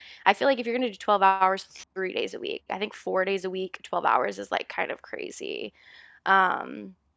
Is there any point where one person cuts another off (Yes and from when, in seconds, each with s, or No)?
No